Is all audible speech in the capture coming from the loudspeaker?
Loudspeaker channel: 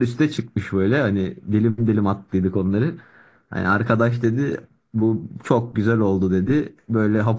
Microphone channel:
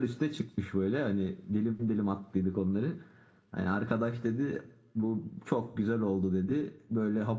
Yes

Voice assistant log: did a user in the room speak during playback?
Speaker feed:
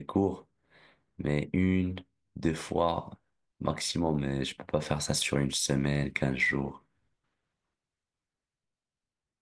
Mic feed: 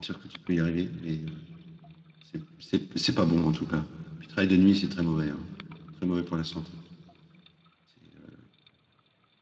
Yes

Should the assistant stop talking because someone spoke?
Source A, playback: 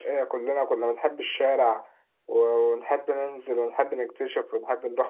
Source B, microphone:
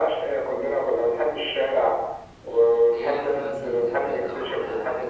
Yes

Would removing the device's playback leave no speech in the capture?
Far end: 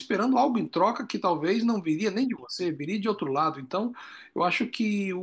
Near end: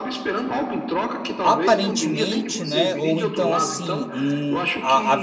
No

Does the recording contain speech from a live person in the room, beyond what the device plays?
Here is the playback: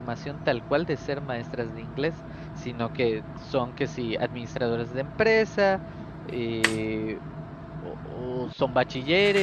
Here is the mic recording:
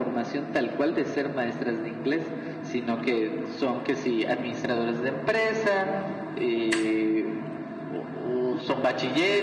No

